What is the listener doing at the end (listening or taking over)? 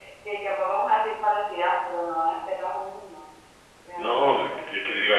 taking over